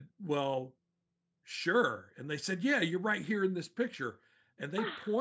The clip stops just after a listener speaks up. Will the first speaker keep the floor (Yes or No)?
Yes